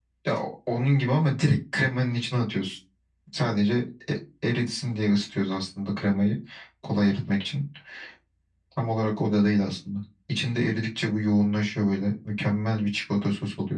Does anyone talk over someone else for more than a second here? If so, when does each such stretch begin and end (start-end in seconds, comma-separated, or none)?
none